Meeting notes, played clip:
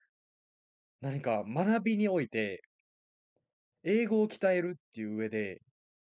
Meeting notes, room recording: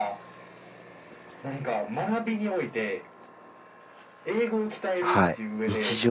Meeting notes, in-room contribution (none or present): present